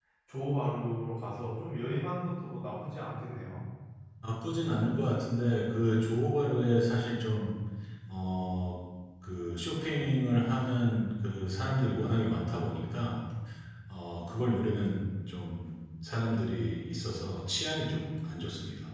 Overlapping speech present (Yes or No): No